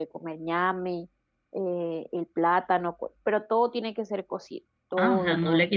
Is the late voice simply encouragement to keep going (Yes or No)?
No